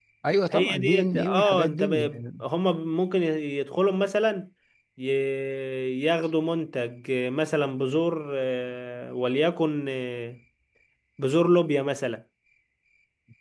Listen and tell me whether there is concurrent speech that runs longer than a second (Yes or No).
Yes